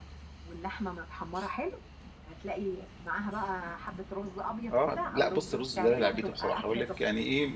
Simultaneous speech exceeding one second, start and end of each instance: 4.7-6.9

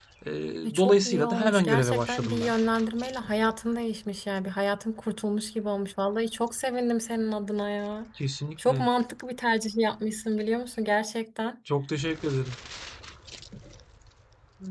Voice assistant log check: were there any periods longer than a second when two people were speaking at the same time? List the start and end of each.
0.8-2.5

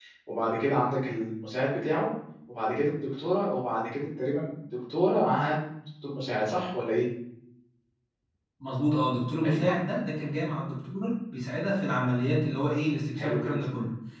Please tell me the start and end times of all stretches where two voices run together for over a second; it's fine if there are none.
none

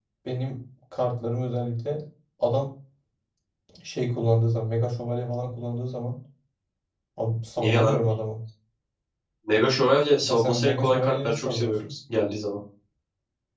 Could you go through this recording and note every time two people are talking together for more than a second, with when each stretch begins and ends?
10.2-11.9

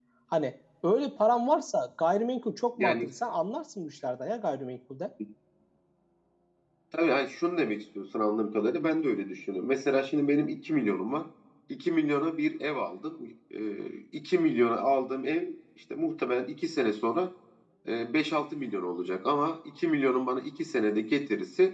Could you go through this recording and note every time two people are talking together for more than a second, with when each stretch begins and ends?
none

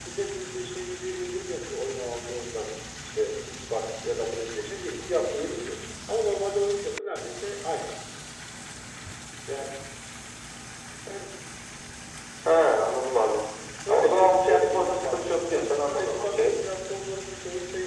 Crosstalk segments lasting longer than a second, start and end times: 13.9-16.5

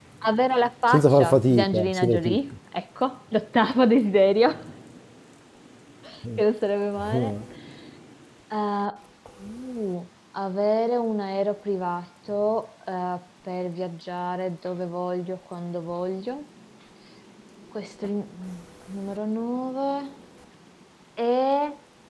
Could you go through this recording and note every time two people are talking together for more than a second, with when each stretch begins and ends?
0.9-2.4

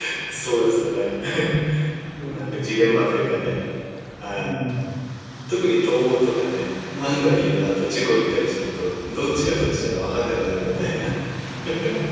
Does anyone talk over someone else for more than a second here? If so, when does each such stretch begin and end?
2.2-3.4

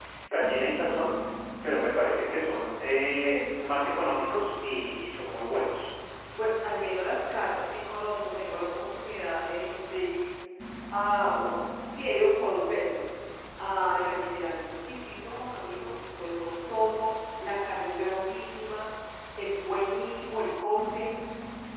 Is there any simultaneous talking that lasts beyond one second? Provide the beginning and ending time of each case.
none

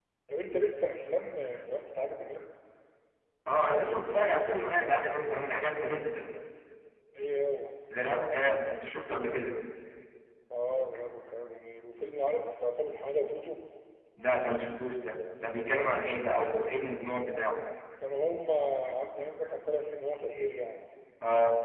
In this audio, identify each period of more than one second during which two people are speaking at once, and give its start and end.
none

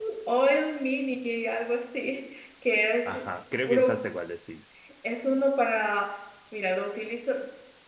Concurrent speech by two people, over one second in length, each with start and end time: none

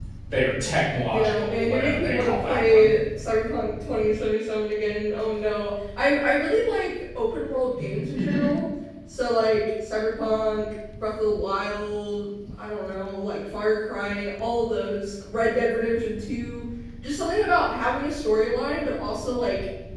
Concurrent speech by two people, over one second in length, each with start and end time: 1.1-2.9

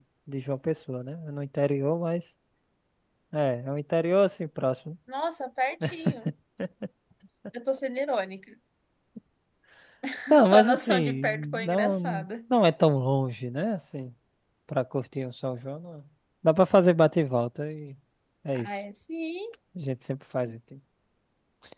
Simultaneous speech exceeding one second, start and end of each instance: 10.4-12.2

